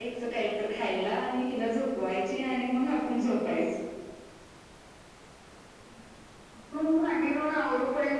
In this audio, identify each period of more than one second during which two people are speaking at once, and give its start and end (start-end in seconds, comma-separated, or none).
none